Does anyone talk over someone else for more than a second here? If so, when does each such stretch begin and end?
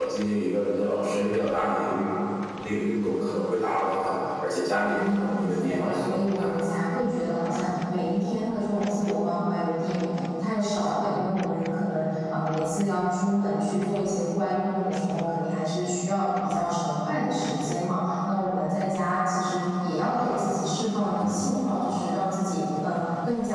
4.8-6.5

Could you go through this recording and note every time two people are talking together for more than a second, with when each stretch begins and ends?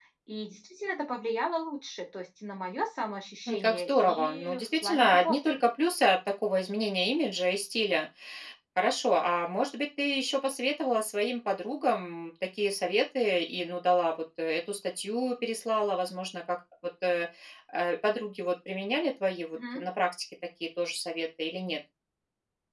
3.5-5.6

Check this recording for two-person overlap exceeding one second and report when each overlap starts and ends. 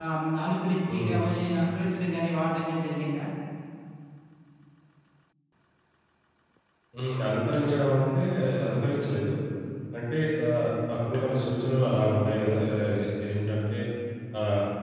none

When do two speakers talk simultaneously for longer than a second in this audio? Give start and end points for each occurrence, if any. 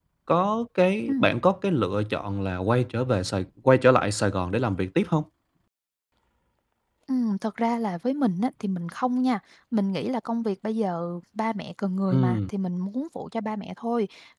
none

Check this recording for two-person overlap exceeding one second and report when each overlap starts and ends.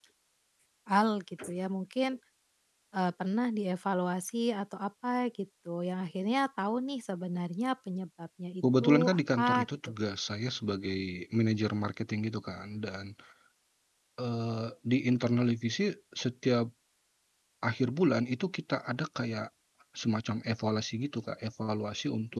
8.6-10.0

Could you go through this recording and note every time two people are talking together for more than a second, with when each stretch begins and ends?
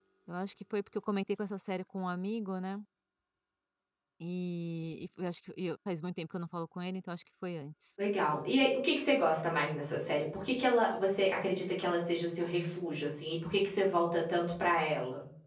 none

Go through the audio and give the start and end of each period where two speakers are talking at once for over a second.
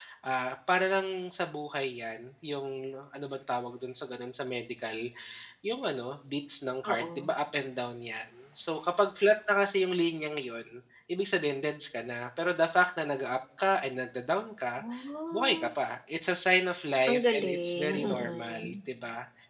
17.1-18.8

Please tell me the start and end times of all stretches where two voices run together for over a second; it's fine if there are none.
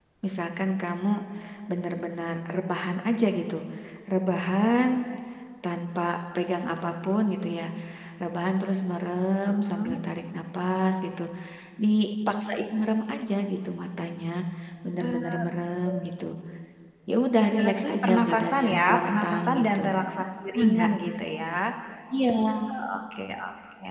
17.5-19.8

